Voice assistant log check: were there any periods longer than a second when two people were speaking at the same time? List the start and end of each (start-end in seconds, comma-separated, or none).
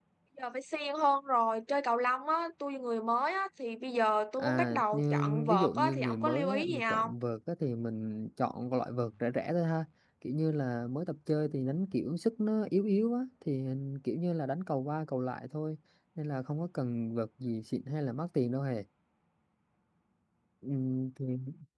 4.4-7.1